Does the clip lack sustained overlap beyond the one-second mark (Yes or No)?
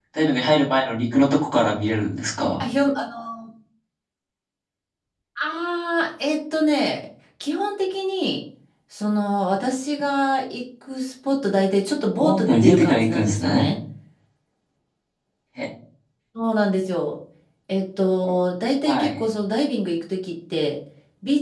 No